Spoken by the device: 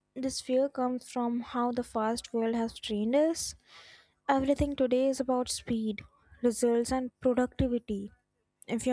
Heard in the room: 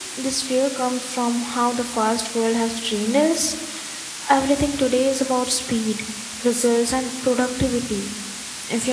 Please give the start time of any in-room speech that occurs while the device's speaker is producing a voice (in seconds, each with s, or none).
none